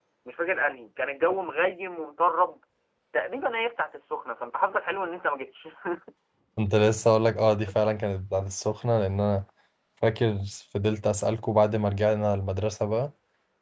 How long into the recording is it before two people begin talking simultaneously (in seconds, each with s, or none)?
none